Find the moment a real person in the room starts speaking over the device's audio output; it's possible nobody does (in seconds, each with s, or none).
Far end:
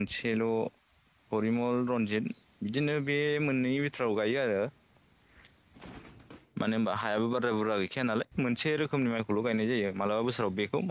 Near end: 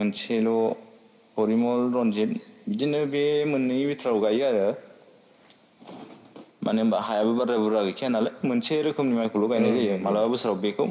9.6 s